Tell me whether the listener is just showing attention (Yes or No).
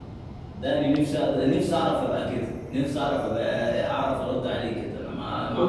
No